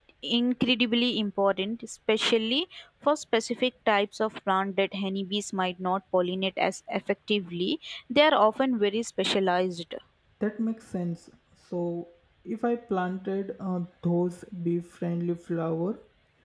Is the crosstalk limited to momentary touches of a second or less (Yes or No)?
Yes